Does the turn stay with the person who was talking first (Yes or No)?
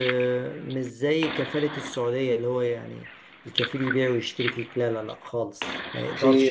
No